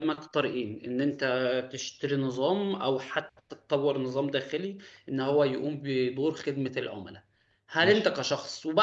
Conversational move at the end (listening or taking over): listening